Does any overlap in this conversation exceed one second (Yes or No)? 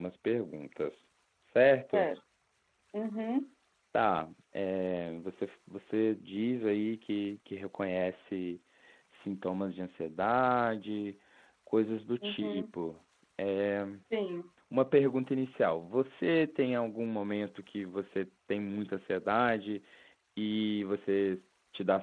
No